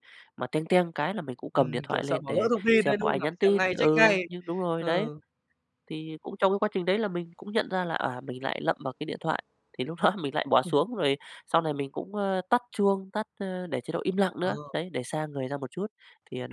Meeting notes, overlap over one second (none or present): present